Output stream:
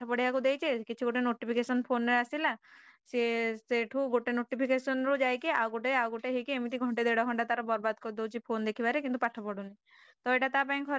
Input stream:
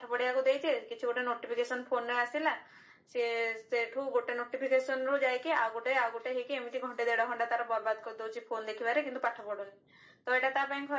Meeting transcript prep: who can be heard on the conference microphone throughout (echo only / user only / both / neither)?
echo only